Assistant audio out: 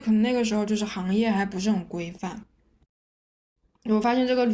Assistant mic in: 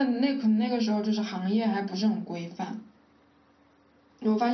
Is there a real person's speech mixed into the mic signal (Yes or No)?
No